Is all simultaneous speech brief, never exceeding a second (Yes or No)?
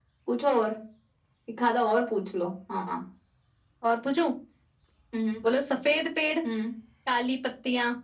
Yes